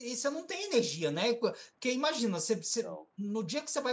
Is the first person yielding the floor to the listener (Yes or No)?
No